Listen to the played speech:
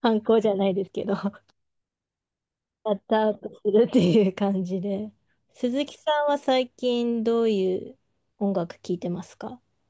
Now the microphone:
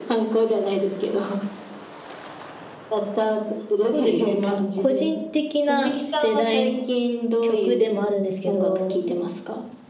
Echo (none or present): present